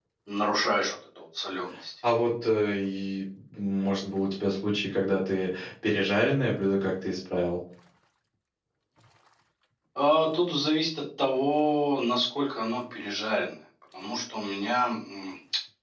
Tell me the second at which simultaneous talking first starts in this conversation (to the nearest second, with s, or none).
none